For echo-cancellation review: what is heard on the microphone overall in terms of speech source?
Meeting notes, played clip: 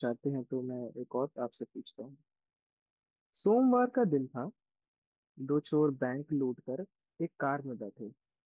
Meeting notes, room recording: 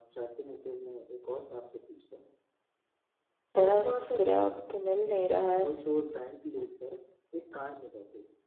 both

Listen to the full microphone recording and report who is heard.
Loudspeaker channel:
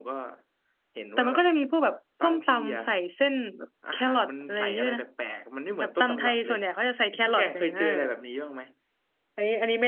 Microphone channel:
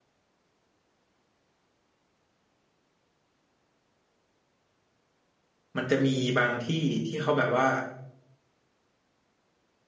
user only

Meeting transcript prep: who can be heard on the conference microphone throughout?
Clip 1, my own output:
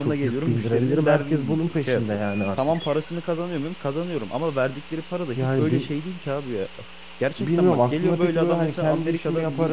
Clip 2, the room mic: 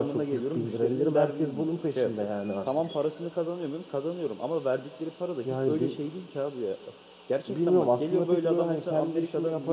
echo only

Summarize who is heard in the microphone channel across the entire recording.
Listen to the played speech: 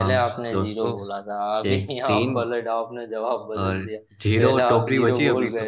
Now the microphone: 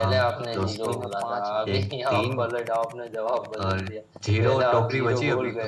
both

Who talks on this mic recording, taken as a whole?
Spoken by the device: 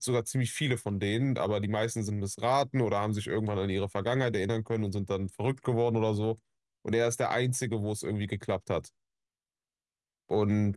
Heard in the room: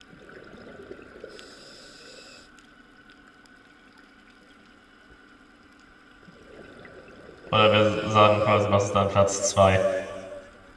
user only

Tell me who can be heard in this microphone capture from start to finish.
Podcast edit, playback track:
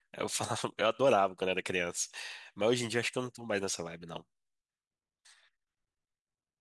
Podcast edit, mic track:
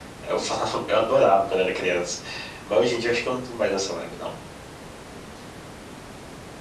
echo only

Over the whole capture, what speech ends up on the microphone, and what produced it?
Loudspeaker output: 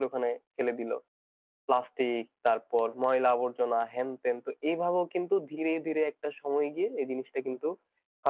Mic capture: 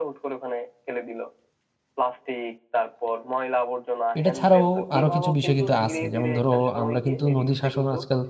both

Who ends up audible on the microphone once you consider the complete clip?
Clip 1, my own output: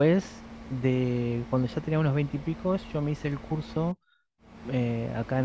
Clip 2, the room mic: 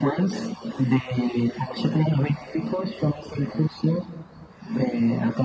echo only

